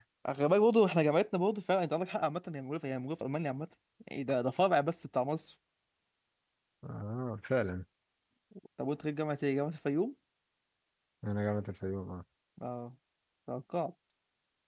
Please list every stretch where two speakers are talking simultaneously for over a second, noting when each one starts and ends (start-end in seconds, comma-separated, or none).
none